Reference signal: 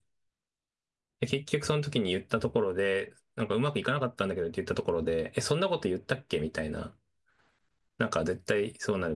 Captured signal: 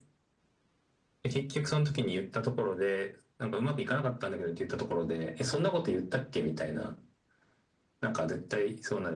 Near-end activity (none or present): none